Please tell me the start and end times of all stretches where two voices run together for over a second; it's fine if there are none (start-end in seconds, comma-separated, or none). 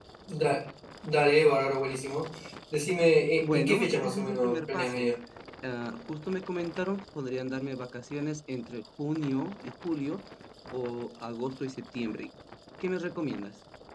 3.4-5.1